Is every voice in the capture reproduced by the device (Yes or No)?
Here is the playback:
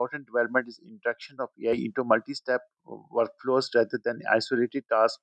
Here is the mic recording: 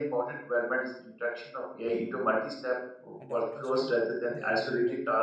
No